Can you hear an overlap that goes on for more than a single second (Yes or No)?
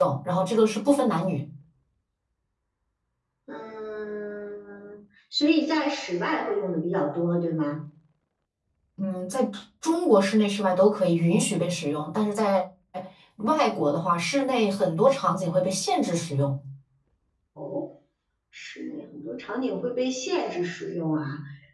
No